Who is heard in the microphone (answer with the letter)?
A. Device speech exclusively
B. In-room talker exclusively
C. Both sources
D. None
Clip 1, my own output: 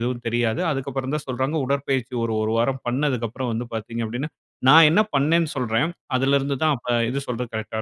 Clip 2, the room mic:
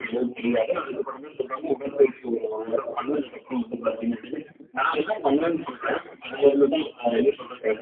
A